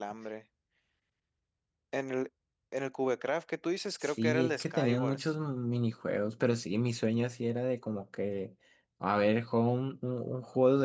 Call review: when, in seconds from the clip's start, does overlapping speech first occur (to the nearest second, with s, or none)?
4 s